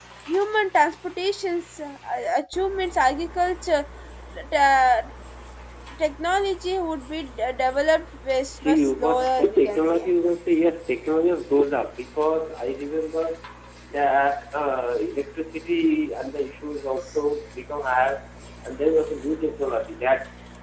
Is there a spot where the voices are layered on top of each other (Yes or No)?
Yes